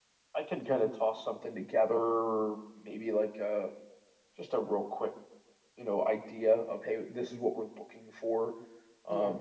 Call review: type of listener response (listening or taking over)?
listening